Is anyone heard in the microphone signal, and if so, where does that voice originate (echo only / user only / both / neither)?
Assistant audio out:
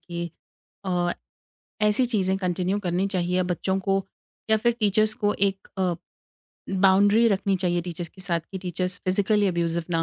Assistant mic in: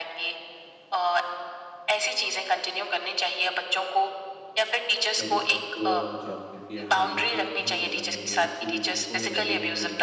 both